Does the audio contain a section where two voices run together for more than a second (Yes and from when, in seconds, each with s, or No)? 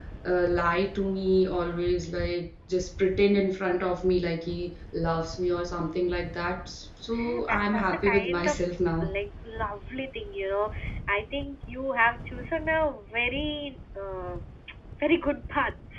Yes, from 7.1 s